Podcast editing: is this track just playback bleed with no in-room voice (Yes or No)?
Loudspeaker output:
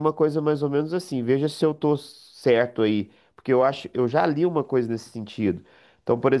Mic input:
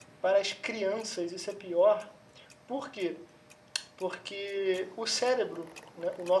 No